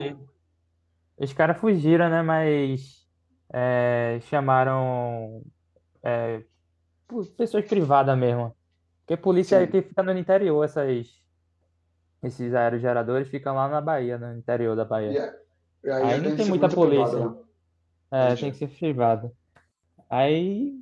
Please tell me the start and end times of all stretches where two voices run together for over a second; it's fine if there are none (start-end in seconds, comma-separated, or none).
16.0-17.3